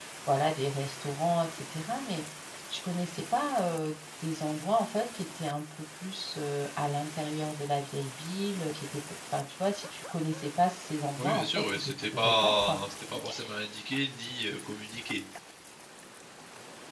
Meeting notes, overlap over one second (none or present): present